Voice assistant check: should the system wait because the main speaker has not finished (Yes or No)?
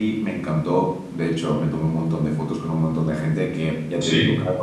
Yes